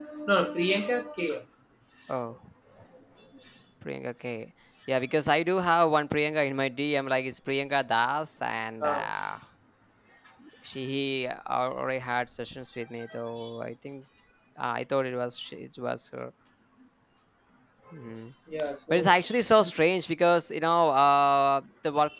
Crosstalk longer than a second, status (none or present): none